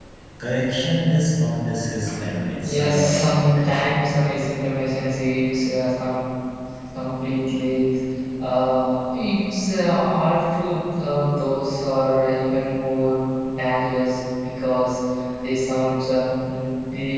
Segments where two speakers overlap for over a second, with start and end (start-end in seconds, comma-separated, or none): 2.6-4.0